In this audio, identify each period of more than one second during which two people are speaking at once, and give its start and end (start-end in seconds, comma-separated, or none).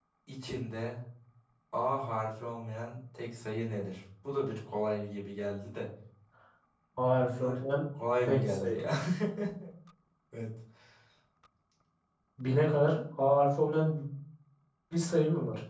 none